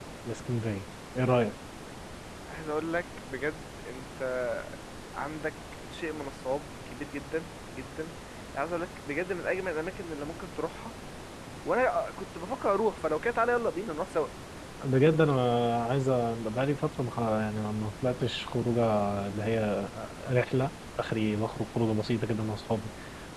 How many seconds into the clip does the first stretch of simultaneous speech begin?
none

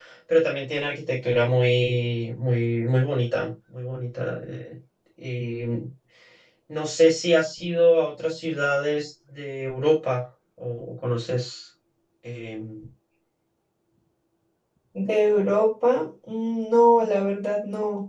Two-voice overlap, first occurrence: none

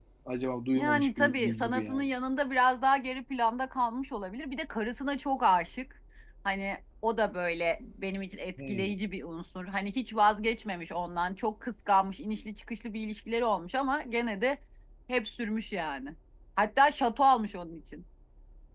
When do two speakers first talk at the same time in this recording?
0.7 s

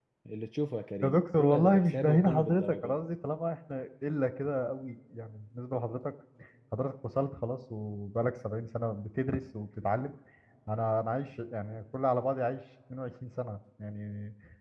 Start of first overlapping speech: 1.0 s

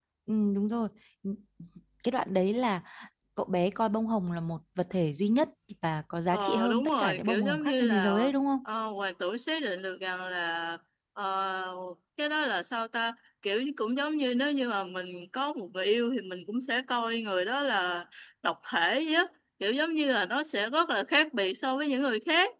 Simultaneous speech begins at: 6.3 s

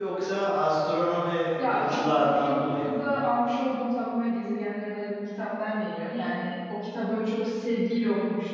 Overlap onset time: 1.6 s

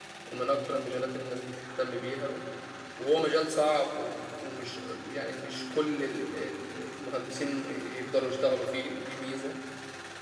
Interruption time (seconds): none

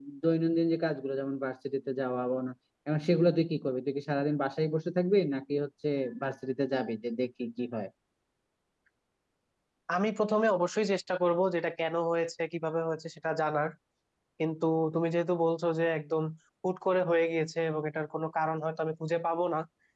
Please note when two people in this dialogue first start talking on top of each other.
none

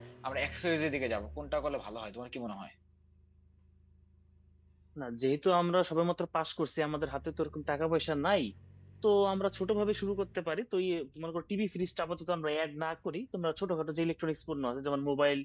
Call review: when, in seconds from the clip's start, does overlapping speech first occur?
none

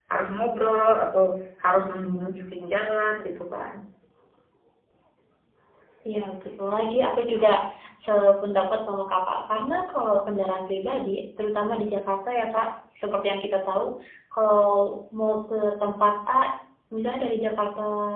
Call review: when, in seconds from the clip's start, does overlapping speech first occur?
none

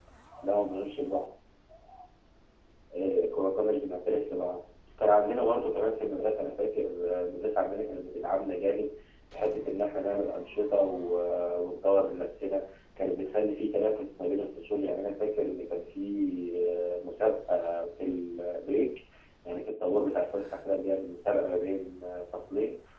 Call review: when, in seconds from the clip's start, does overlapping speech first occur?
none

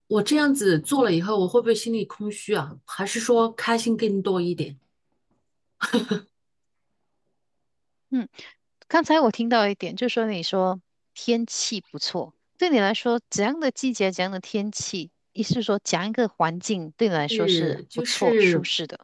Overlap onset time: 17.3 s

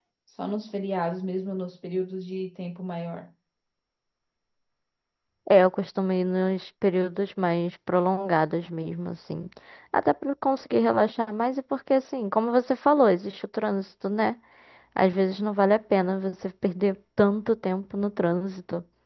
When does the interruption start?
none

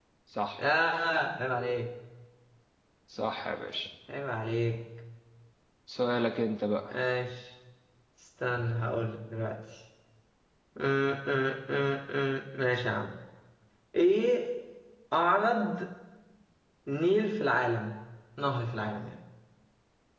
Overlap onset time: none

